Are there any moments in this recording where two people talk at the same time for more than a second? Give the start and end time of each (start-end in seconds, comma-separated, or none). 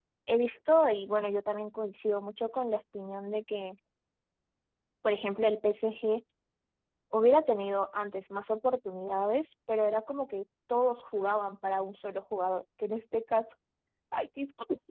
none